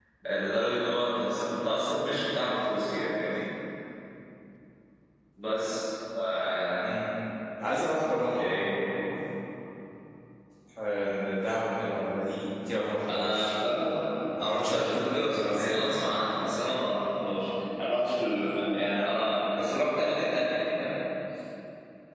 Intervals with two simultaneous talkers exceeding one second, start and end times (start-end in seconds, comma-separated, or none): 14.4-16.1